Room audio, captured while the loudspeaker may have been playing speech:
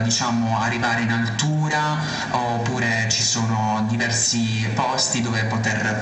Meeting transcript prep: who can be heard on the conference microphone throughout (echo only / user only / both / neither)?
echo only